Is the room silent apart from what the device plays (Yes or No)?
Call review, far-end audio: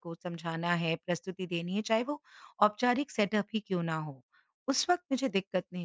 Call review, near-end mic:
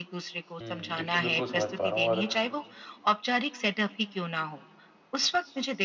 No